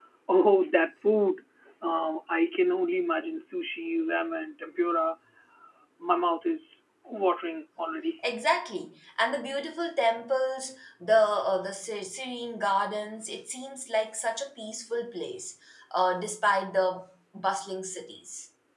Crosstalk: none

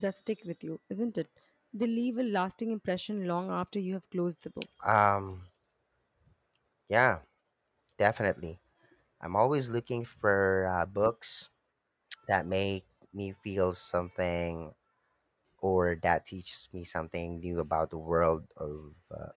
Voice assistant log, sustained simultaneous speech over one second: none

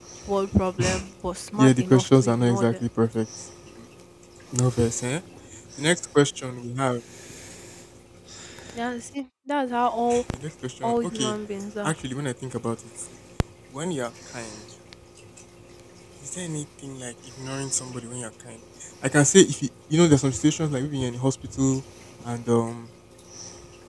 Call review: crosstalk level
present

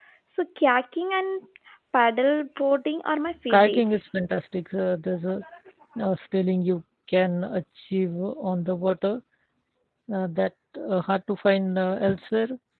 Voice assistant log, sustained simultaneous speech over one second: none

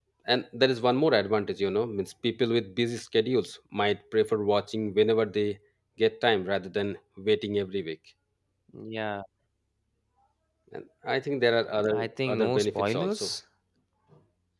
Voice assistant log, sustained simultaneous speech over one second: present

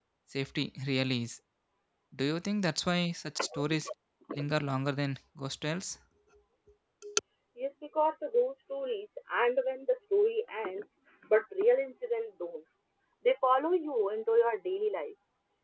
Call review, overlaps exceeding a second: none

